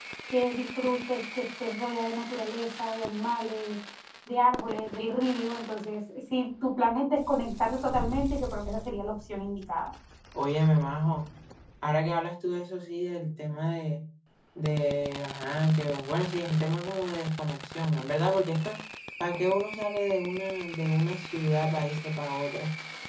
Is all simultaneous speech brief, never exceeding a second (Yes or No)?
Yes